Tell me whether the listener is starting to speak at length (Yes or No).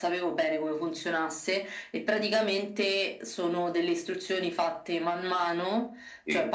No